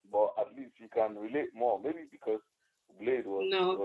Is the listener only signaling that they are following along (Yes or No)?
Yes